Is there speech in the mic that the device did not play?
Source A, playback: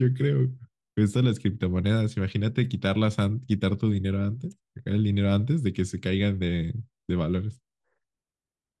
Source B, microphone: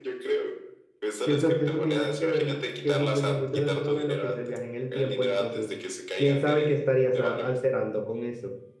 Yes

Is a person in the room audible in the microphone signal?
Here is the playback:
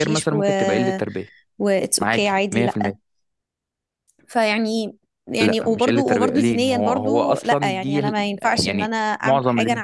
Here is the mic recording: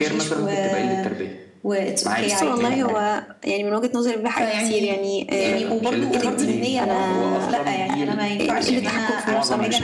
Yes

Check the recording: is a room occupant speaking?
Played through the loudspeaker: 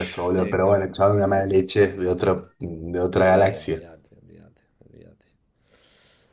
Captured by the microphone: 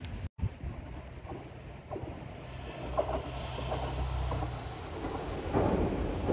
No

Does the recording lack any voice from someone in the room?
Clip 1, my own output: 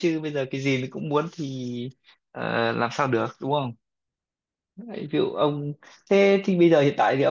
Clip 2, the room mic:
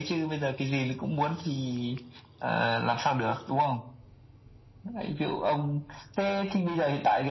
Yes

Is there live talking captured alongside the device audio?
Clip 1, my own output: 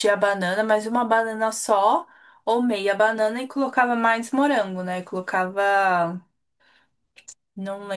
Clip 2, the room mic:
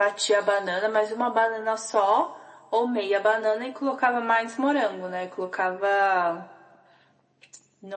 No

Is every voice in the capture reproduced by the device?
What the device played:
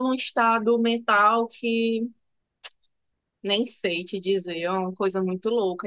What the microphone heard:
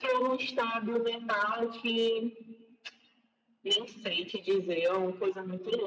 Yes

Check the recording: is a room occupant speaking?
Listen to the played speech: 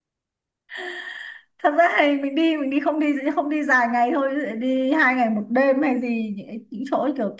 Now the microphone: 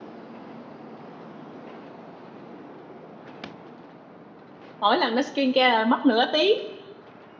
Yes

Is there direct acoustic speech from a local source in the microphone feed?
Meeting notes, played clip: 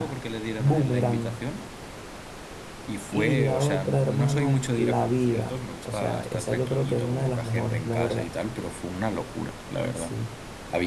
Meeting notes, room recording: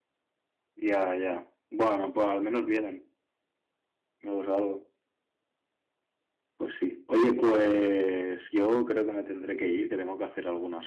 Yes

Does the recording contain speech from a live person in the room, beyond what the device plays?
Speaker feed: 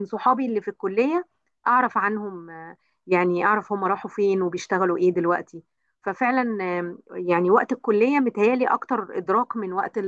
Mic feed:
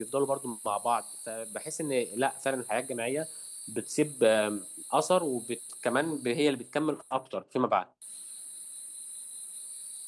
Yes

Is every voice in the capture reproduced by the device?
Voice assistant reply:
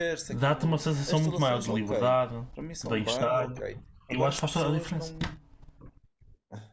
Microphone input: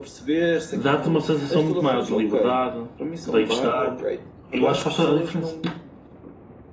Yes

